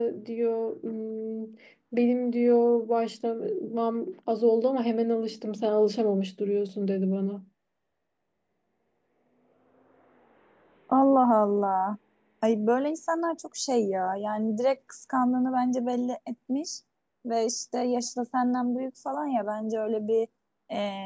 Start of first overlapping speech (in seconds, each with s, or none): none